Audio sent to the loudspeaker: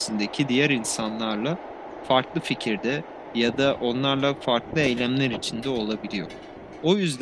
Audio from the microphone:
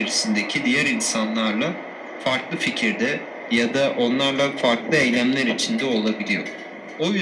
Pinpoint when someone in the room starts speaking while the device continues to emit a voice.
none

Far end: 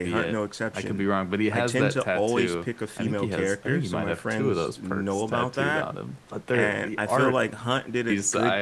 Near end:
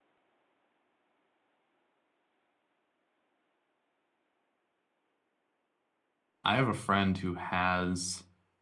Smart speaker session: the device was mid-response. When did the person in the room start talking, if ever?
6.4 s

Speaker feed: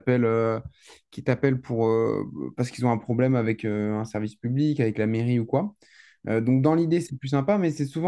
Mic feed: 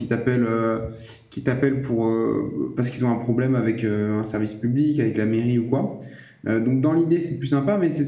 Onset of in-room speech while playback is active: none

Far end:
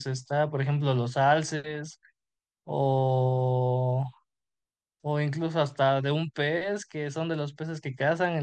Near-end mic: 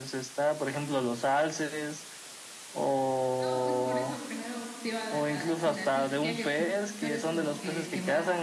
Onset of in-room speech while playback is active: 3.4 s

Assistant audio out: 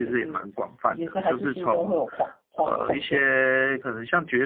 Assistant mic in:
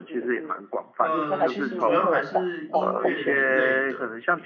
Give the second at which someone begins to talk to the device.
1.0 s

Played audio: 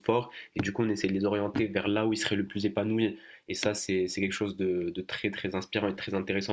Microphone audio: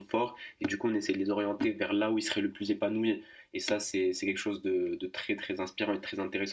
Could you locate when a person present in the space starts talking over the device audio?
none

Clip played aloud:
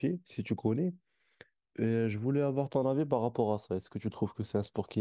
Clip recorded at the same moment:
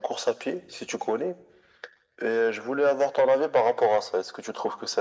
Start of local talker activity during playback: none

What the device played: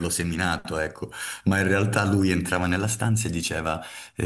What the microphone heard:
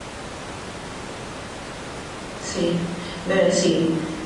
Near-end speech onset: 2.4 s

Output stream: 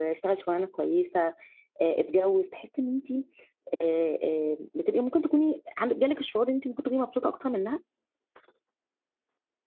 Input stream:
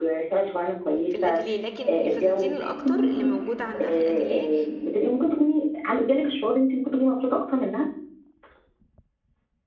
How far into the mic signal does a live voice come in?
1.1 s

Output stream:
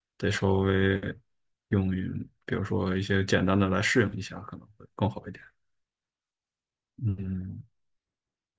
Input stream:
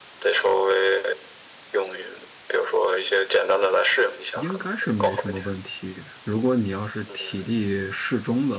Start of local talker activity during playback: 4.3 s

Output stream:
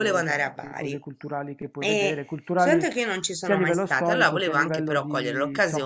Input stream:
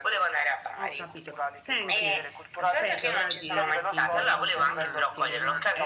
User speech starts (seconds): 0.8 s

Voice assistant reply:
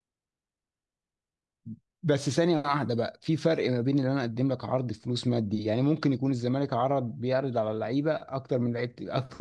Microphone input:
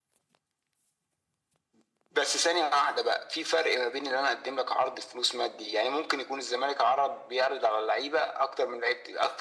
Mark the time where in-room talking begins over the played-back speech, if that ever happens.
none

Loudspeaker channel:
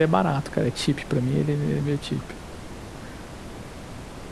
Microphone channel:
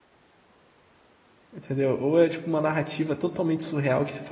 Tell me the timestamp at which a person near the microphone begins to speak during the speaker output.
1.5 s

